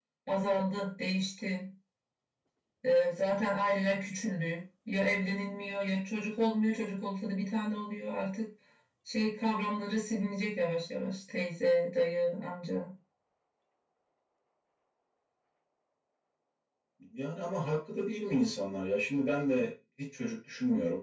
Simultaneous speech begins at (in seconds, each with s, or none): none